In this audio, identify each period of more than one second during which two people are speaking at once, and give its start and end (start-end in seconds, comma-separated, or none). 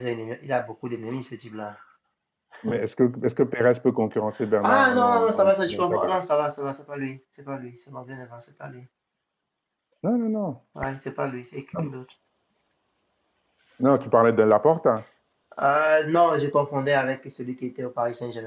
4.6-6.1